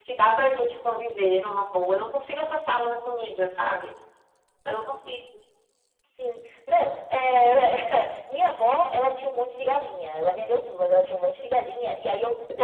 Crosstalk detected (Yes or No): No